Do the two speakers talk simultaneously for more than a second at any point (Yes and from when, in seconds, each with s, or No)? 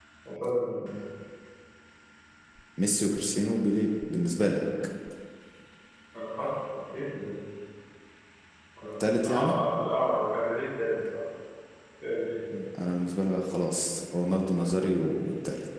No